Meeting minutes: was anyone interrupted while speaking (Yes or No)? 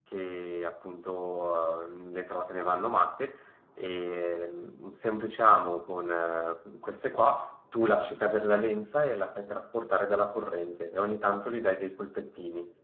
No